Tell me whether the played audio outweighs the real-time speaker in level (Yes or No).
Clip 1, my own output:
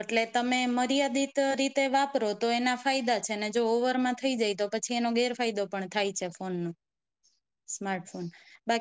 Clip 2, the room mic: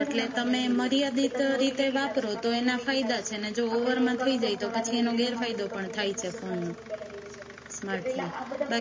Yes